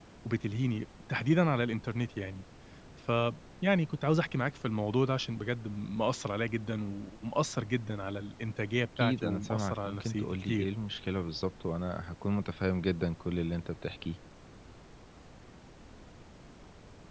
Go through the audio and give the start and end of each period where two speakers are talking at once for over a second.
9.0-10.7

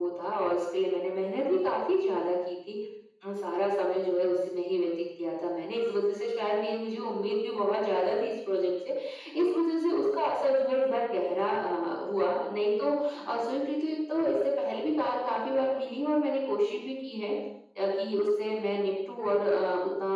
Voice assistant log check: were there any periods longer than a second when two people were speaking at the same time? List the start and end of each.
none

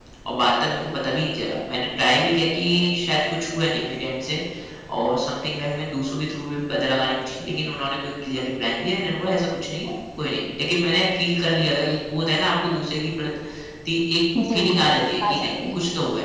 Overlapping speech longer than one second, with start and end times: 14.5-15.8

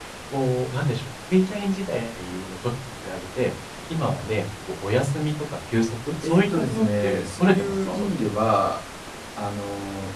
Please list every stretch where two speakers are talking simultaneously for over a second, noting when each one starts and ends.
6.2-8.1

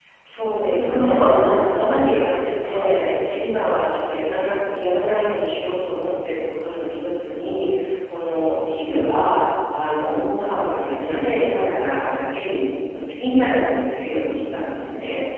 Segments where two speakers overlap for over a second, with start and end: 0.6-2.9

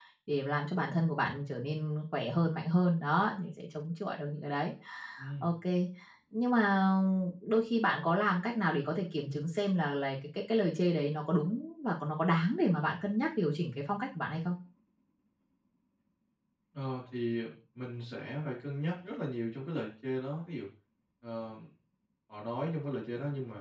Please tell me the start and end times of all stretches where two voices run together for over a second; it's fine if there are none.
none

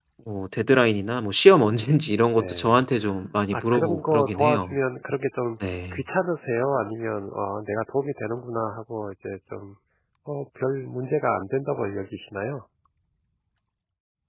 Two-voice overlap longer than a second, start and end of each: 3.5-4.8

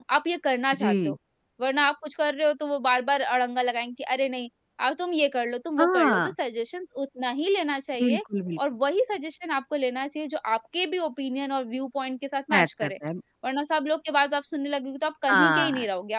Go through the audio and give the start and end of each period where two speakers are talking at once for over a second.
none

